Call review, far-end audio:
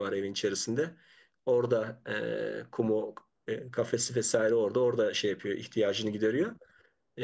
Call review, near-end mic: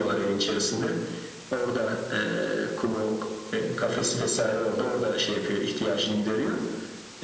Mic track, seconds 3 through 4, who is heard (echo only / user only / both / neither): echo only